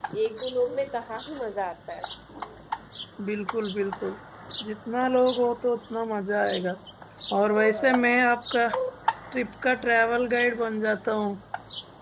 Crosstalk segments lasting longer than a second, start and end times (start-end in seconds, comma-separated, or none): none